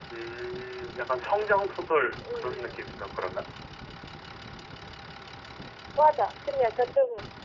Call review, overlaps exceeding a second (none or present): none